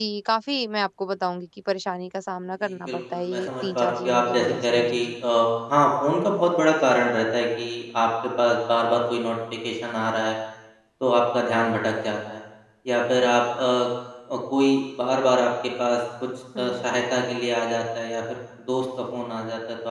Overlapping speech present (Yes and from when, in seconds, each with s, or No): Yes, from 2.7 s